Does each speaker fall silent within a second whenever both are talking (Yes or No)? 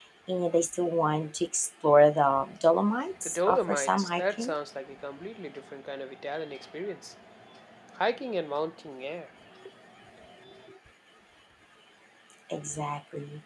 No